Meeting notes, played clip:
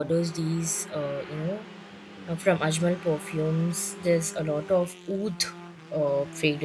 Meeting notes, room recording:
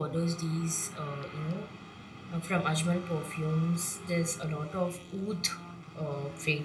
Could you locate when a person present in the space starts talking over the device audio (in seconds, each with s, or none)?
none